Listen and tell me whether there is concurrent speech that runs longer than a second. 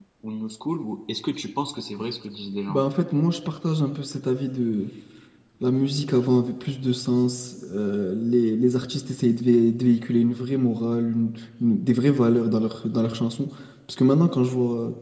No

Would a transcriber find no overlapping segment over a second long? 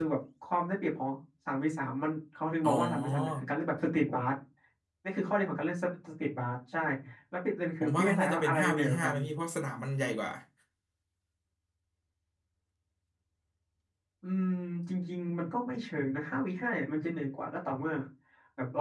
No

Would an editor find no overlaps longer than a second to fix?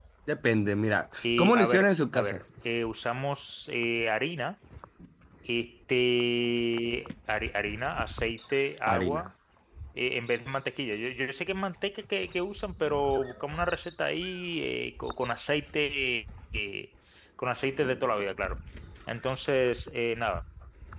No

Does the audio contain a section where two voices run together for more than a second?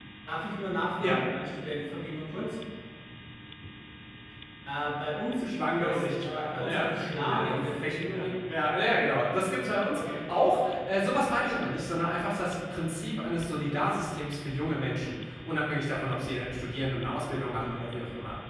Yes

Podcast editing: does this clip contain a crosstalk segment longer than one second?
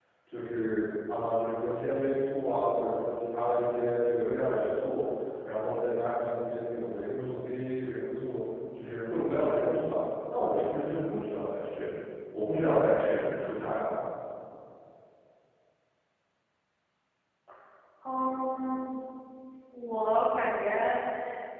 No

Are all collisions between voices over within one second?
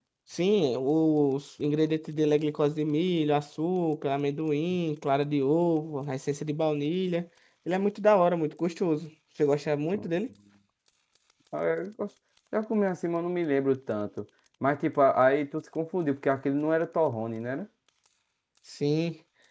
Yes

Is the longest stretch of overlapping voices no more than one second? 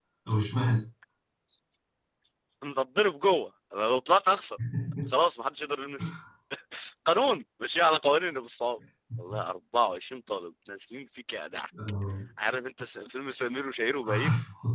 Yes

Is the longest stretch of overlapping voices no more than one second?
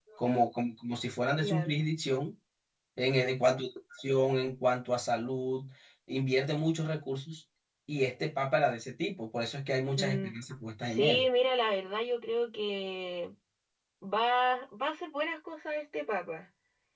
Yes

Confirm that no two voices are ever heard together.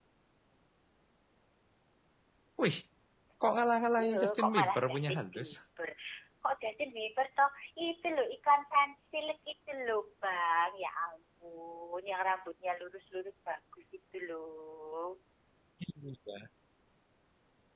No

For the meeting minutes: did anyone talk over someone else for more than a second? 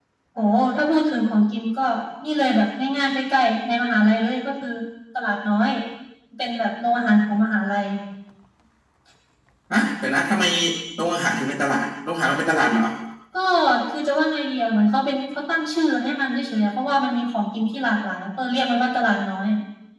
No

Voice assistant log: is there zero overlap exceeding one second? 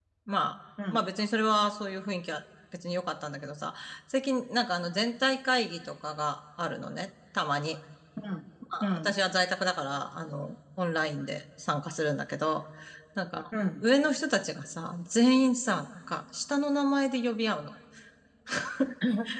Yes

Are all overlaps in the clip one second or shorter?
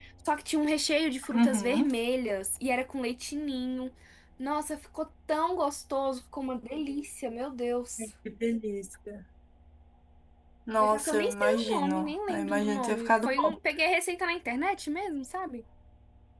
No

